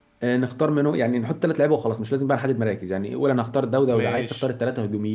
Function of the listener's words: listening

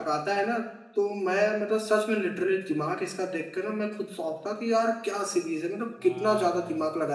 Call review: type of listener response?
taking over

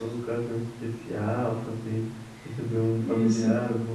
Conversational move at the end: listening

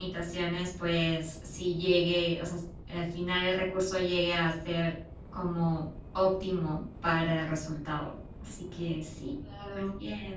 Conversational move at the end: taking over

